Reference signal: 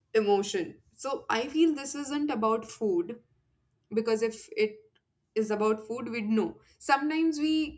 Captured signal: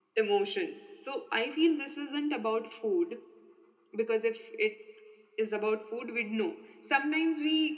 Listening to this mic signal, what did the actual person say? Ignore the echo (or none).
none